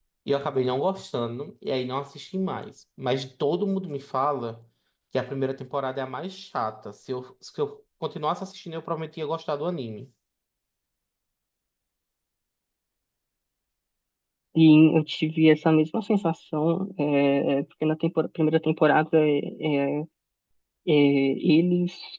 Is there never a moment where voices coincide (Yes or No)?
Yes